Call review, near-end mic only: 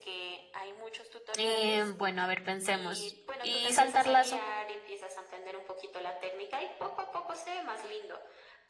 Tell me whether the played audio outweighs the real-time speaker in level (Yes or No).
No